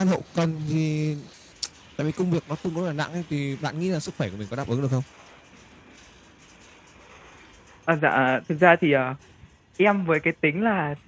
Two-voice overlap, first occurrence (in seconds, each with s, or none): none